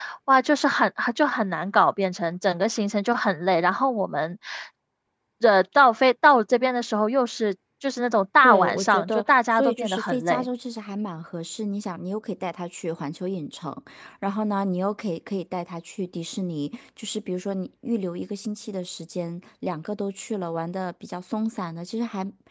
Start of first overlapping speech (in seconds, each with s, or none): 8.4 s